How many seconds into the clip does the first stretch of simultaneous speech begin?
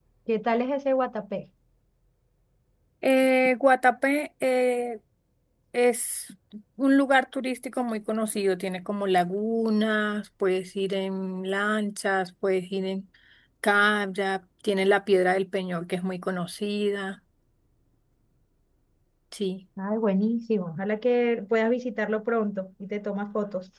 none

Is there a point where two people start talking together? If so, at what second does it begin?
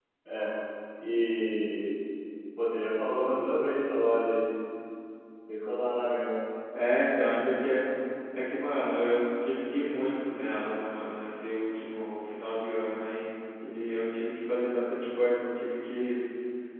none

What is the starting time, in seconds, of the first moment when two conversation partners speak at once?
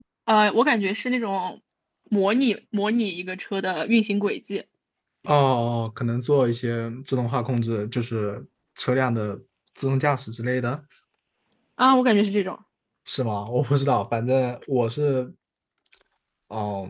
none

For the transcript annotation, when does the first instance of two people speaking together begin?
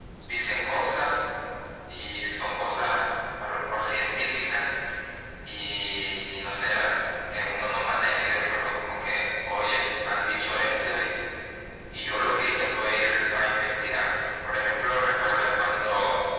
none

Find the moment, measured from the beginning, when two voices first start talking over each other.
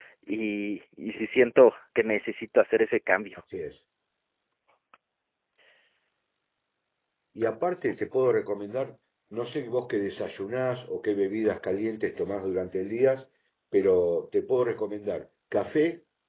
none

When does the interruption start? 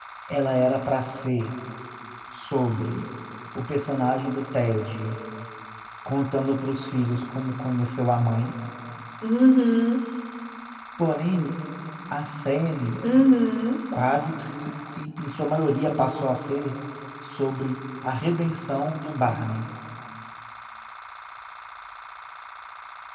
none

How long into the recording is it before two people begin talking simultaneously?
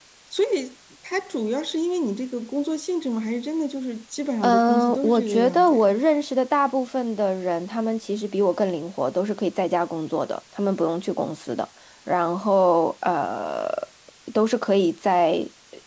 4.4 s

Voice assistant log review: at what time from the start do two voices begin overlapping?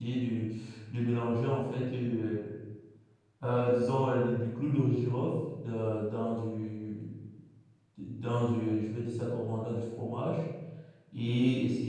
none

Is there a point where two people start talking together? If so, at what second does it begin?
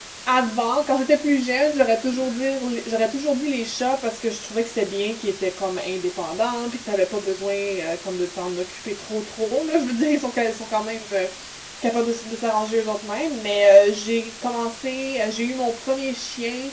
none

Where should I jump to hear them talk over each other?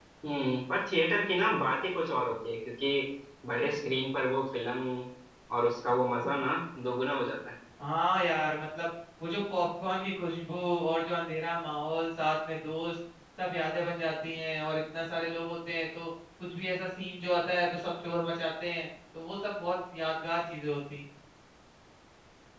none

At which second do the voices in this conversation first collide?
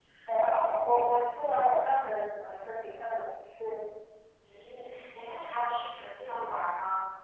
none

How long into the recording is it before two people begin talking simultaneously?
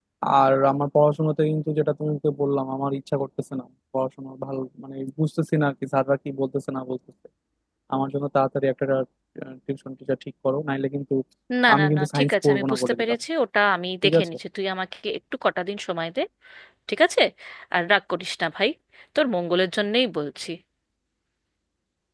11.8 s

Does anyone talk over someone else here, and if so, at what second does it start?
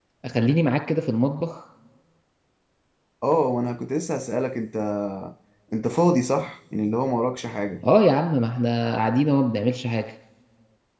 none

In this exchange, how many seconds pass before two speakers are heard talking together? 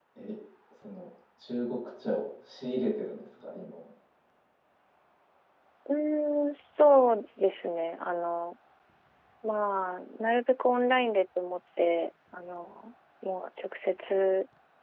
none

